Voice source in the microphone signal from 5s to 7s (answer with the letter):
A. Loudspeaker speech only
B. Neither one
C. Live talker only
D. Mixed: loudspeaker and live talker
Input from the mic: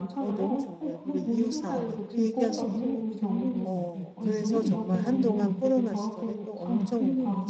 D